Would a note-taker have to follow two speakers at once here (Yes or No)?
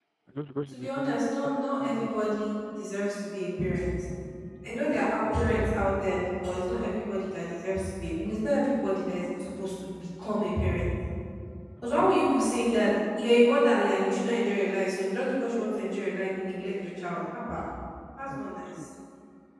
Yes